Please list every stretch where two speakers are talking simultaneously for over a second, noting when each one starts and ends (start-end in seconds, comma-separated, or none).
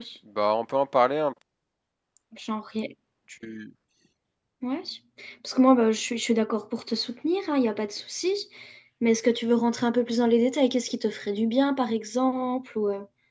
none